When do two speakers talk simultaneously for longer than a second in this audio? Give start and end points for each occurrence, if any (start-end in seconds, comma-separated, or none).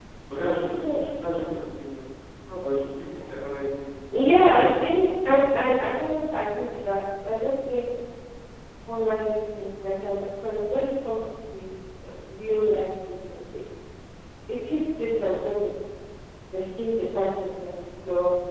4.1-5.6